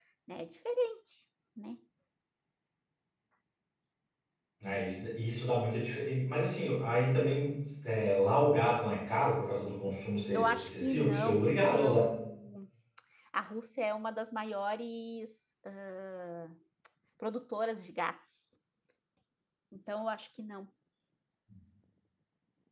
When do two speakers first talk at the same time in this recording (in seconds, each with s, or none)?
10.3 s